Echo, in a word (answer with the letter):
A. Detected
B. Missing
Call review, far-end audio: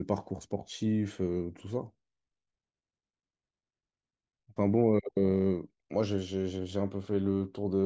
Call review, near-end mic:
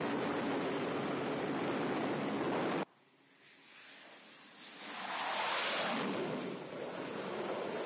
B